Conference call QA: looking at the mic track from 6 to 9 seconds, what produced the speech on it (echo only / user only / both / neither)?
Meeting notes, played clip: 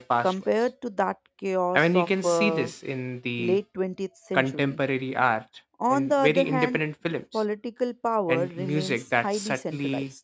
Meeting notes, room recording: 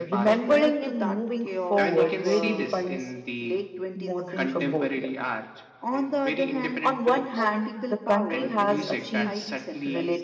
both